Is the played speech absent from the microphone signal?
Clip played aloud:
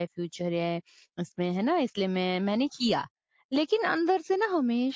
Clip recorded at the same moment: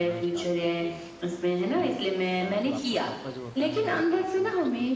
No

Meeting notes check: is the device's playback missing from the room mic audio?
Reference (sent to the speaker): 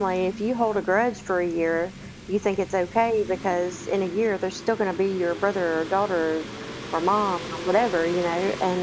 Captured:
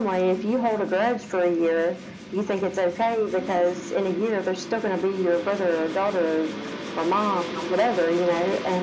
No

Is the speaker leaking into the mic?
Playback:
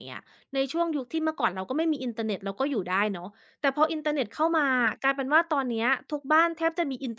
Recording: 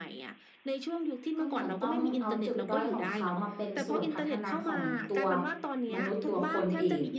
Yes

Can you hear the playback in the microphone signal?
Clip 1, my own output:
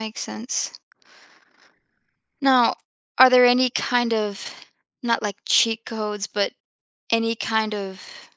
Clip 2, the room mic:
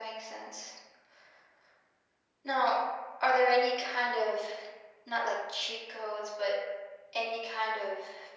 Yes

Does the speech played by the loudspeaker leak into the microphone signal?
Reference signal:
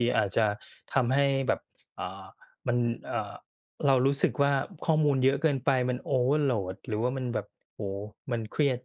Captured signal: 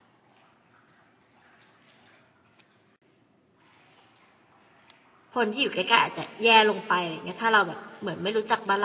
No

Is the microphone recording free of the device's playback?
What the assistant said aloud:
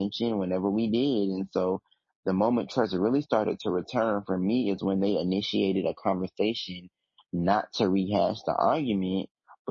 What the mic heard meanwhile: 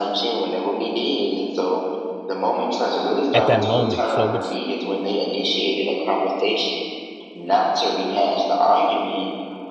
No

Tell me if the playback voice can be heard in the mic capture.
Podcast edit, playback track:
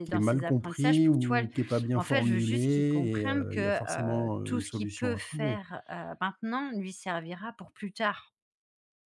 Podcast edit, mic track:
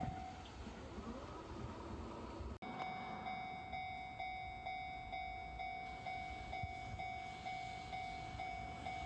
No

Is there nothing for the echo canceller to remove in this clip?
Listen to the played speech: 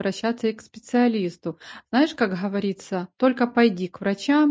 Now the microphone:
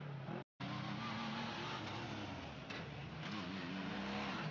Yes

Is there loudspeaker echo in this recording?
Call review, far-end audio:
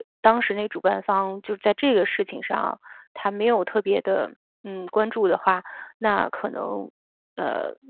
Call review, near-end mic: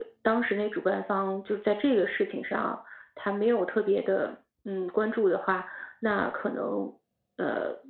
Yes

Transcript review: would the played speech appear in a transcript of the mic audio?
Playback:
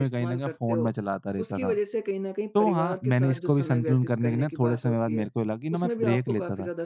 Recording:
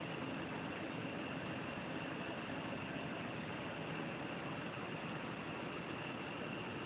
No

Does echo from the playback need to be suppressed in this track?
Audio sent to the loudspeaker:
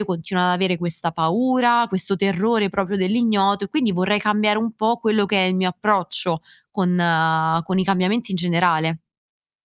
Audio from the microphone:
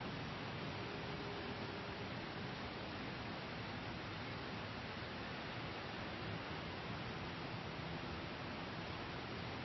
No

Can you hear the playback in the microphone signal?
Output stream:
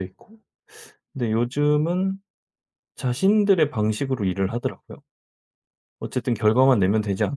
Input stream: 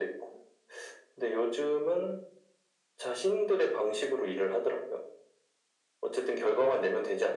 Yes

